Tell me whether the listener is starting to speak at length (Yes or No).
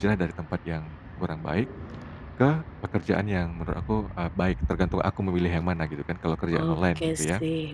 Yes